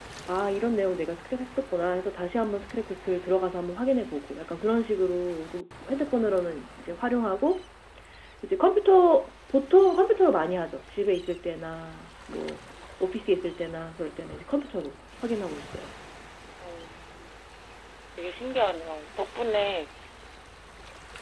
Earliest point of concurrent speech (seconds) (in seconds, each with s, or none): none